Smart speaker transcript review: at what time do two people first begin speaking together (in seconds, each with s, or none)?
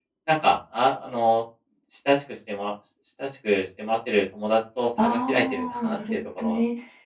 5.0 s